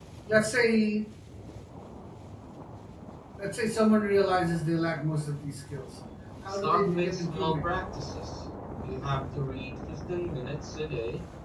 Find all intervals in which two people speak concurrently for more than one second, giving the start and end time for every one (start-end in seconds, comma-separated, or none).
6.5-7.7